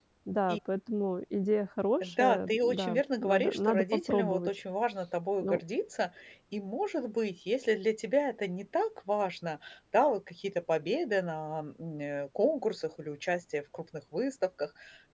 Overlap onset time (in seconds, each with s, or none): 2.0 s